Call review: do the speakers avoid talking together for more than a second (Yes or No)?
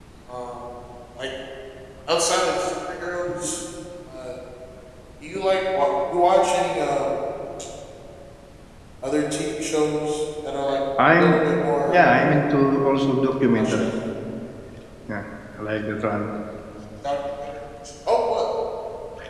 Yes